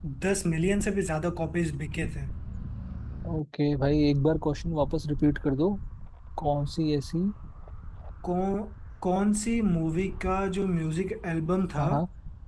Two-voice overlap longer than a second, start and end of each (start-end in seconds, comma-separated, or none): none